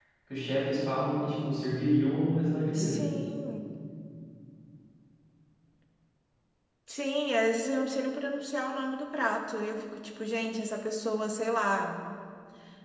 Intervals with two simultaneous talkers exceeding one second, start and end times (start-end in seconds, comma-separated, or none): none